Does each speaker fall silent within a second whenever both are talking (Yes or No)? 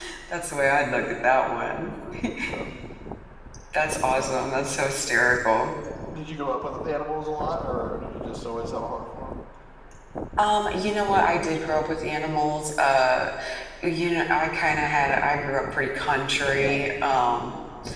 Yes